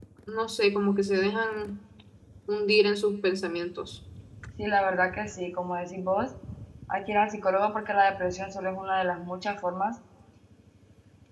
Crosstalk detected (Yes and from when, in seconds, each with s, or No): No